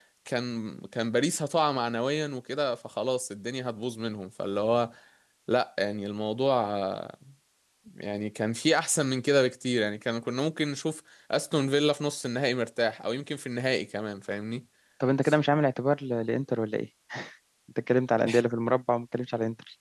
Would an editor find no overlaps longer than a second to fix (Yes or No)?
Yes